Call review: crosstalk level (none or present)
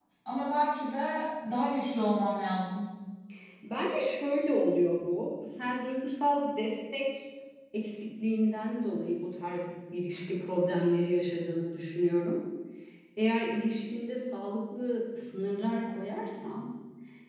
none